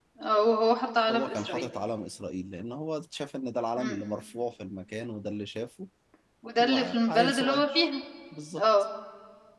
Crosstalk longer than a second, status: present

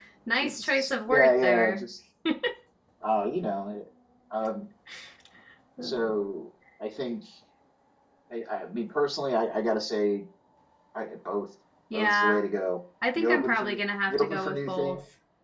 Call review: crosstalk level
present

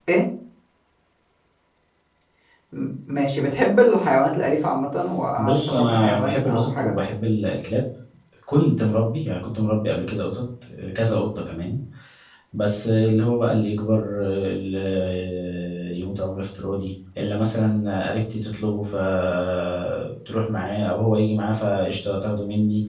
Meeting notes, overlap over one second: present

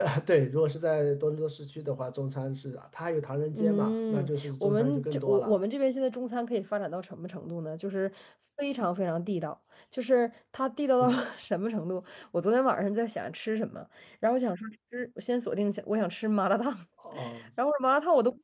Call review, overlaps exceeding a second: present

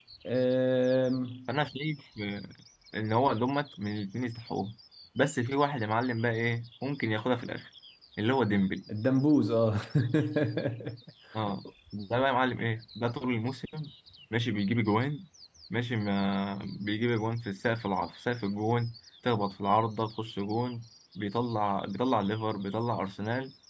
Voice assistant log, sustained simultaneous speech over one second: none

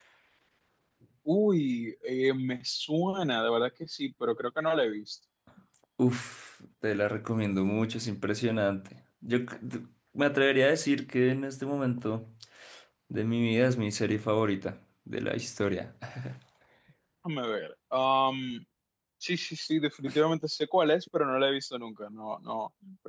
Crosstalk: none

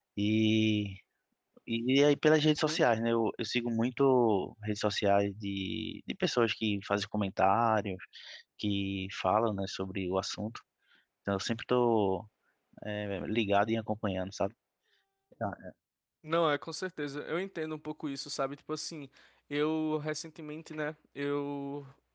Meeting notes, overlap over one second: none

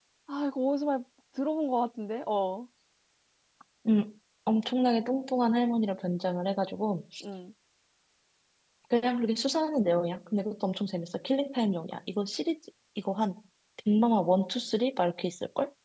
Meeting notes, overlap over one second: none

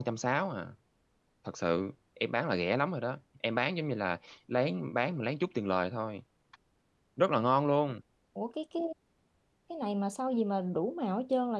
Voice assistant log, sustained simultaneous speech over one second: none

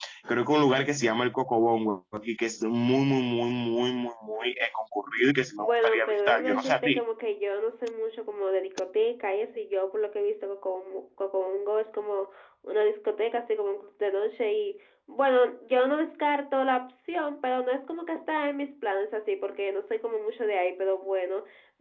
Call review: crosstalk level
present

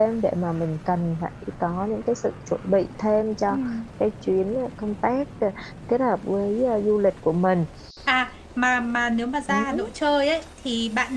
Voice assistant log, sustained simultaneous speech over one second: none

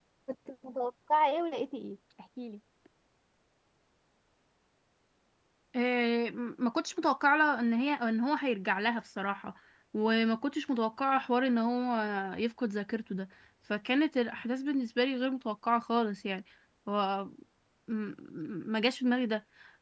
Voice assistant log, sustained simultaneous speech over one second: none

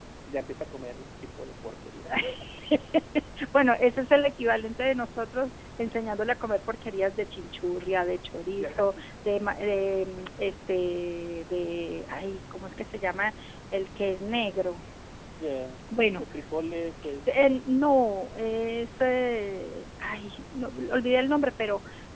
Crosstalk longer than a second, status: none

